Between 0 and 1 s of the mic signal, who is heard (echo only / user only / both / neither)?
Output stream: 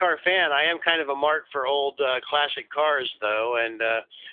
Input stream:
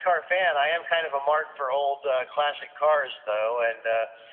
echo only